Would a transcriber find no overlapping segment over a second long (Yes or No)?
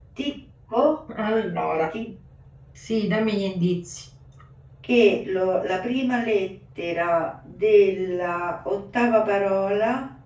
Yes